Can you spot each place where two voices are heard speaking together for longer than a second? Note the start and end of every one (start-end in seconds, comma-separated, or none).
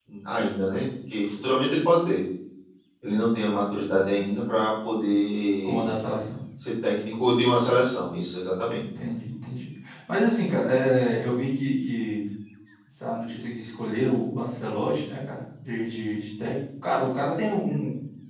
none